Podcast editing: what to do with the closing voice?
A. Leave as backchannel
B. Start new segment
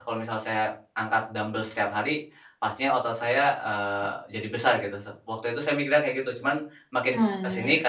A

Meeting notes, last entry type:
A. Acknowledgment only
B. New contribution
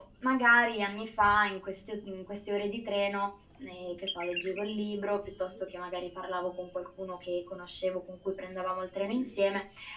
A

